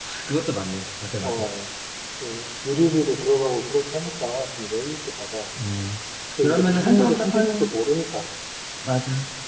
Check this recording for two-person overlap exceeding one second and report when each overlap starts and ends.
6.4-7.7

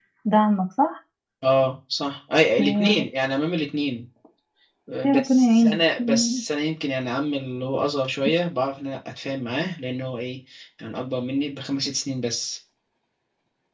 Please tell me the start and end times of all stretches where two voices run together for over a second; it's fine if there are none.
5.0-6.4

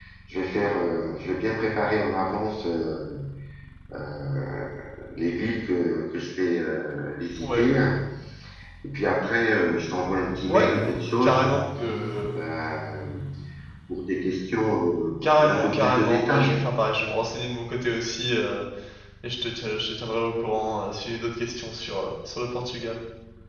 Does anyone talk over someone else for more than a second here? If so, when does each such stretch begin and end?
15.2-16.6

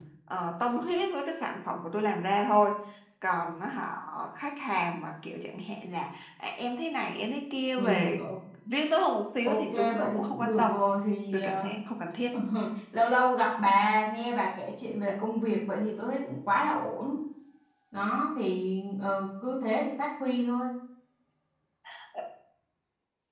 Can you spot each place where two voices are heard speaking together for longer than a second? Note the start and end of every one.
9.4-10.7

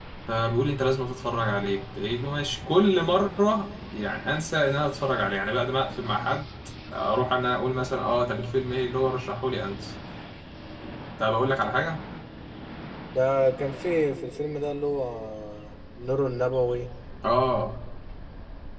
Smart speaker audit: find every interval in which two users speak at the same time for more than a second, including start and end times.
none

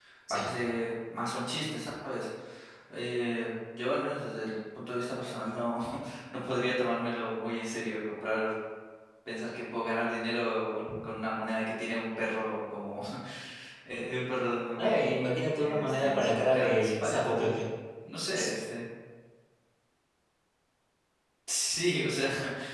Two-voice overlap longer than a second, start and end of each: 15.6-17.5

